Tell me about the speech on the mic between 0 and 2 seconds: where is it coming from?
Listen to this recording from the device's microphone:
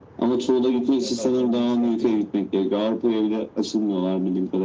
both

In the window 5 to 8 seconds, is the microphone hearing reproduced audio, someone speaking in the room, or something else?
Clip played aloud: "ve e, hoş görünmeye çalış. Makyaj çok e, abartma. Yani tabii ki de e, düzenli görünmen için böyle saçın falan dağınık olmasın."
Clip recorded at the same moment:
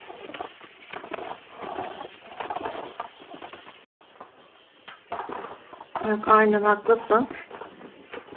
user only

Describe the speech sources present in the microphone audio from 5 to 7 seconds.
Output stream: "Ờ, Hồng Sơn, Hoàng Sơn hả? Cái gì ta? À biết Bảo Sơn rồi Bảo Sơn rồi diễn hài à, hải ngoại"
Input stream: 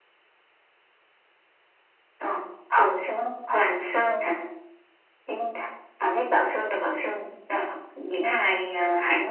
echo only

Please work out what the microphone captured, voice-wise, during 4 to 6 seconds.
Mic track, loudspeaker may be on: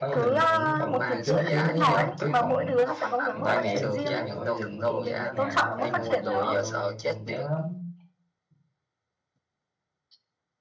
both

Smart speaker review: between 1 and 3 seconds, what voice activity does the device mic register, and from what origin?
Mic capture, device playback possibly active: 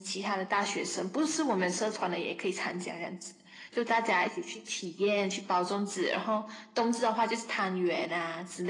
echo only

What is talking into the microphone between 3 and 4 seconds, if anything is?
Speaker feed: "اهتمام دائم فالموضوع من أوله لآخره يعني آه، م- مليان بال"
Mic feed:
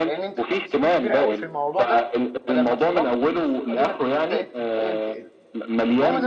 both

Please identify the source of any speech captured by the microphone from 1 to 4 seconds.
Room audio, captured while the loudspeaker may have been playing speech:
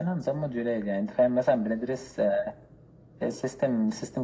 echo only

